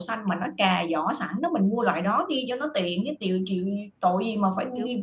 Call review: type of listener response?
taking over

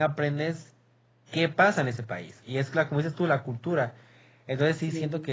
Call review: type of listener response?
listening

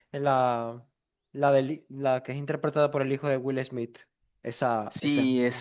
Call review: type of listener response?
taking over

